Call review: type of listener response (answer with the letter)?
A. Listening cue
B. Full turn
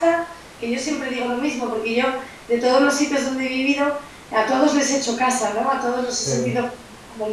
A